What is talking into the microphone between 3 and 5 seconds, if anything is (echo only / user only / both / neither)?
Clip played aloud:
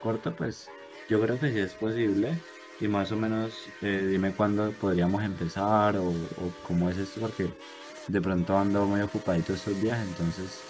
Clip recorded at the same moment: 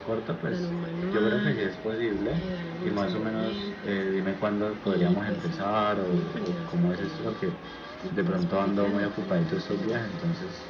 both